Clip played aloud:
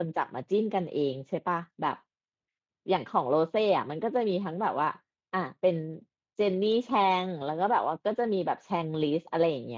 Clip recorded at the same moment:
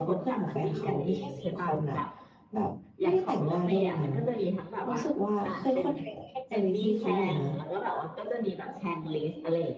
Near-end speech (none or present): present